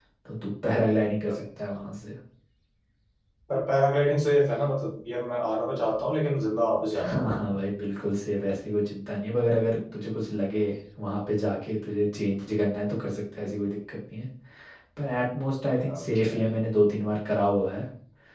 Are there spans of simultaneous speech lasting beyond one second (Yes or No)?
No